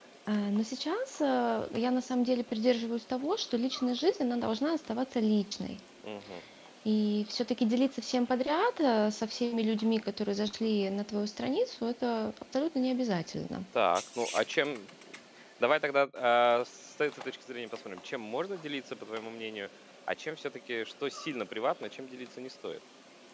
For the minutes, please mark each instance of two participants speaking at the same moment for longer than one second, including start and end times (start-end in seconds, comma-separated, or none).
none